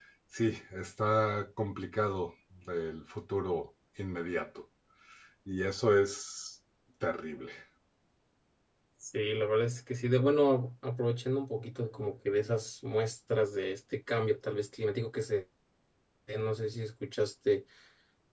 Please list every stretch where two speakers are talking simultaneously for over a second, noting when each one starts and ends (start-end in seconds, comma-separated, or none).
none